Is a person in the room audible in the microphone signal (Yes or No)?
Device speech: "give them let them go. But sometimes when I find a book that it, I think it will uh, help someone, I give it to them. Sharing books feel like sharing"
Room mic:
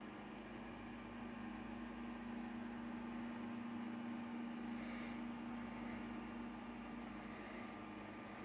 No